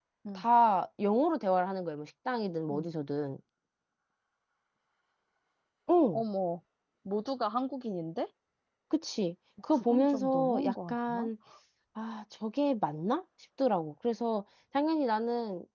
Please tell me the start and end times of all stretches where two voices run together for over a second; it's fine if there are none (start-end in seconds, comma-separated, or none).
9.7-11.3